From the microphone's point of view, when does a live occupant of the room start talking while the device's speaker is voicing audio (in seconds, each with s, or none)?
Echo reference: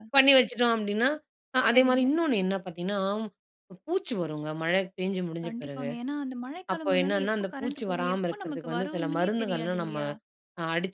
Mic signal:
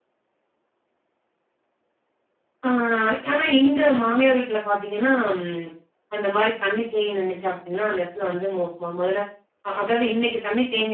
2.7 s